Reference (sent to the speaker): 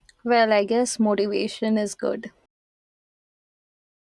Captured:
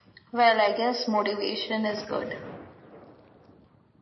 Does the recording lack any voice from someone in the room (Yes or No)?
Yes